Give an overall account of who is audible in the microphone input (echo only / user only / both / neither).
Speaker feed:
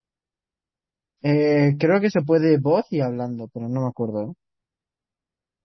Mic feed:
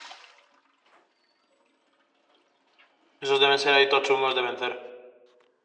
user only